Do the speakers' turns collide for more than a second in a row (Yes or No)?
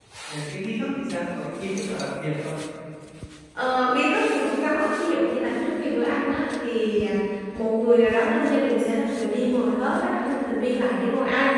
No